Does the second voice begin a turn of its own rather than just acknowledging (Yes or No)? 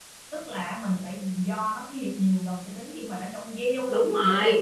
Yes